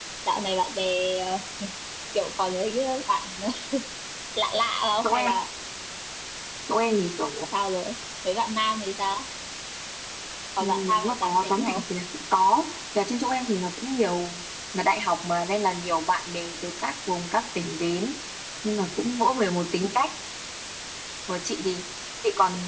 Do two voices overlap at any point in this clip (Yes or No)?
Yes